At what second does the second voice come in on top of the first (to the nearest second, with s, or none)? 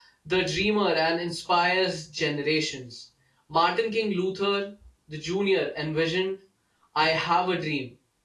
none